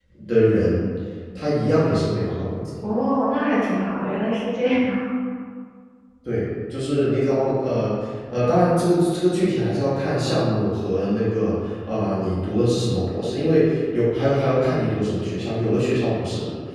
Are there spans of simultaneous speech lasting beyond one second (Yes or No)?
No